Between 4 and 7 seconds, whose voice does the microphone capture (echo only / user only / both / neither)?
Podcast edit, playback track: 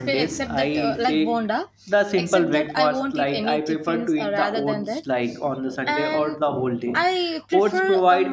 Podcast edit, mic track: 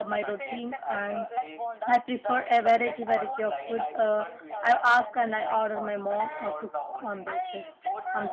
both